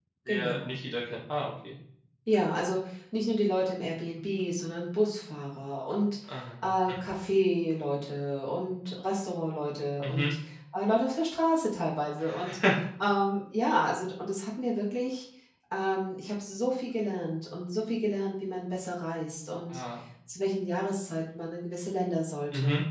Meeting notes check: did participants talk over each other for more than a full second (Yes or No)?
No